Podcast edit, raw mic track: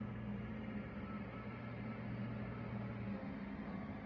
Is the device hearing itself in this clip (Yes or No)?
No